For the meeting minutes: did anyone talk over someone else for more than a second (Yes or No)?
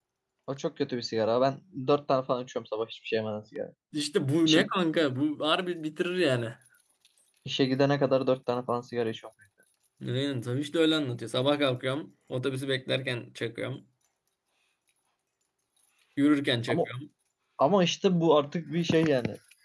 No